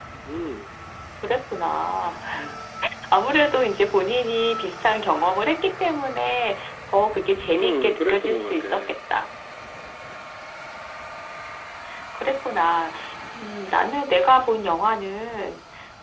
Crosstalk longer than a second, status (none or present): present